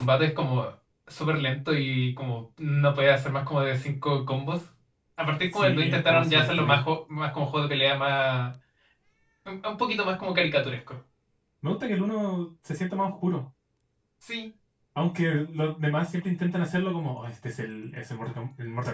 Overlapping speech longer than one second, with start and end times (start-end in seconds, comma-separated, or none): 5.4-6.8